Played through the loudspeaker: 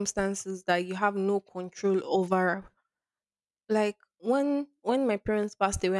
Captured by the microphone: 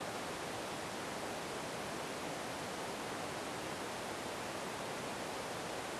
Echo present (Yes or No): No